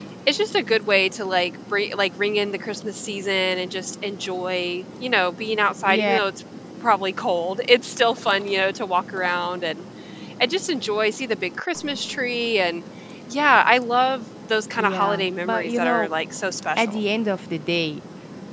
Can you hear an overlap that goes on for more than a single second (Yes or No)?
Yes